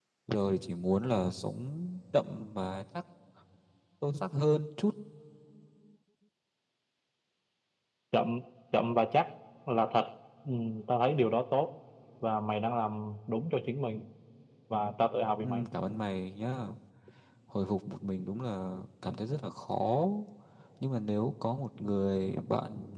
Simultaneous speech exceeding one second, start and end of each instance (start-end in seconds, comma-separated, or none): none